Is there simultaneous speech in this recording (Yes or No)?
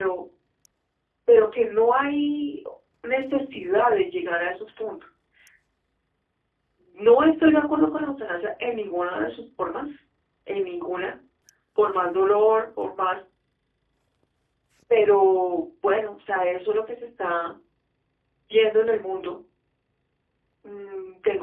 No